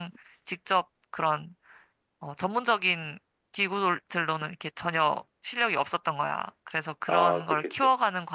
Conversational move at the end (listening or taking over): listening